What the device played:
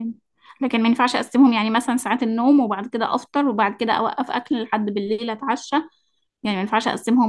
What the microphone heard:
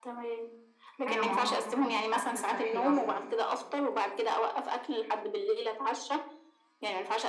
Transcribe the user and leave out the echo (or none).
ايوه ما هو عشان مش اكل صحي اصلا